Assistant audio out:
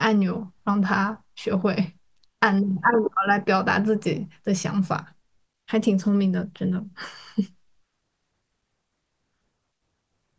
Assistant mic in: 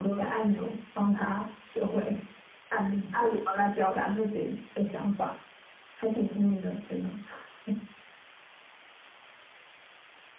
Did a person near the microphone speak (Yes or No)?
No